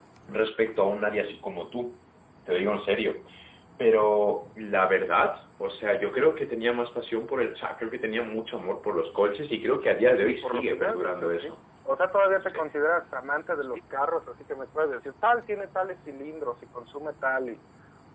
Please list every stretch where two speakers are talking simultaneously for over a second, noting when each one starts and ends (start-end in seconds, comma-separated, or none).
10.2-11.4